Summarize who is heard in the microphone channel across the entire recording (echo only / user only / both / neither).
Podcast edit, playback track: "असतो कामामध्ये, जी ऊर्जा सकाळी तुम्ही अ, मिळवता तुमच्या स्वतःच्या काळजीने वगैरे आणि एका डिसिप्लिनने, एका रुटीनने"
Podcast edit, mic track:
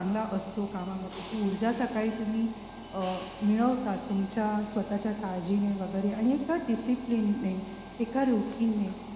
echo only